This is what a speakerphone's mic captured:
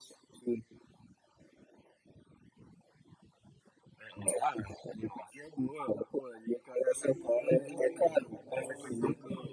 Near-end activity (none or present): present